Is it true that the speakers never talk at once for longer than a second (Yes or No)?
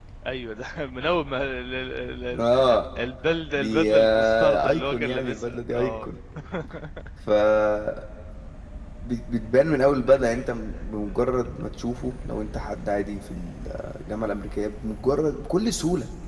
No